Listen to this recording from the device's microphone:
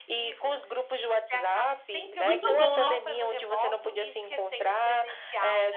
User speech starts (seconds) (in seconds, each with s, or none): 2.2 s